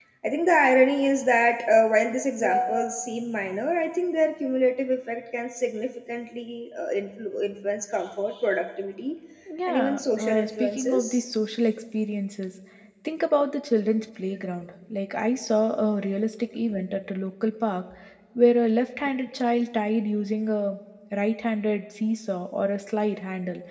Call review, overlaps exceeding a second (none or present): present